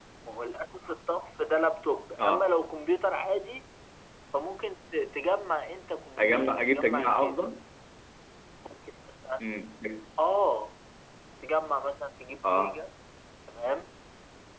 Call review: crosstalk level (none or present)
present